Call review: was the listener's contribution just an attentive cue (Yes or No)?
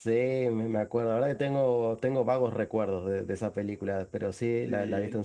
Yes